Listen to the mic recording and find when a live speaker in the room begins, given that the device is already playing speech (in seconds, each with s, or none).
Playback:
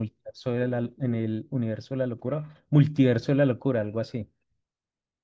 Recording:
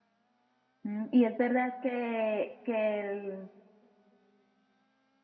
0.8 s